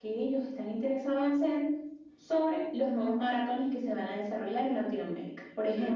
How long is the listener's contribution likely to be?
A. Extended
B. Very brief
B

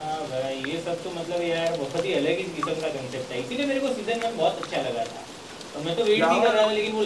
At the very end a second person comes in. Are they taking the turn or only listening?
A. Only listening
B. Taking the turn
A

